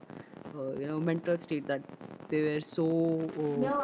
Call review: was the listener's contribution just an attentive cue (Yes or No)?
No